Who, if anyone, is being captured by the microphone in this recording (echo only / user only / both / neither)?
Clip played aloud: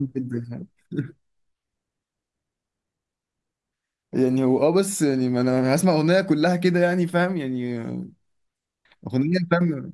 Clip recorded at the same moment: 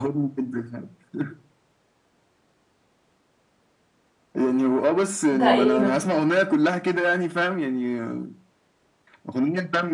both